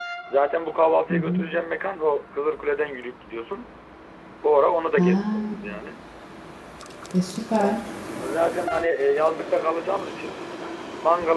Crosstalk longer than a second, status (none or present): none